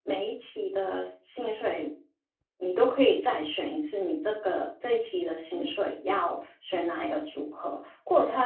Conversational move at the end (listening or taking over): listening